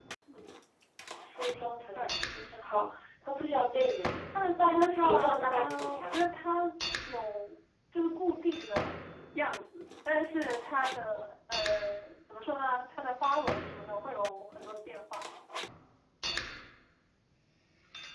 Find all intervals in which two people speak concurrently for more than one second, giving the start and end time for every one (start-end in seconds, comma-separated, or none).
4.6-6.2